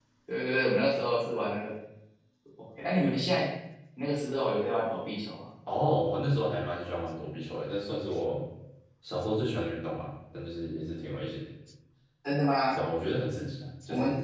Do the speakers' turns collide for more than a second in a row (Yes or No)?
No